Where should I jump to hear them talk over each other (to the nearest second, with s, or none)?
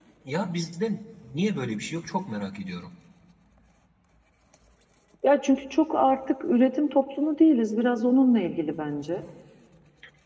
none